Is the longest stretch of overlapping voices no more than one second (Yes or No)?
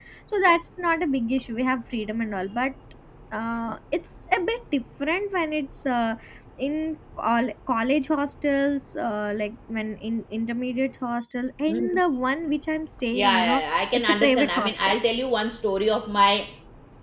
No